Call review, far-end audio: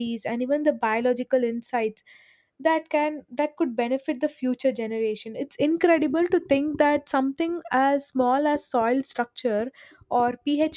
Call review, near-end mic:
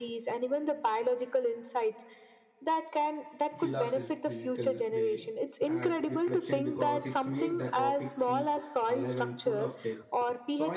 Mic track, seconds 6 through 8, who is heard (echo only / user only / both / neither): both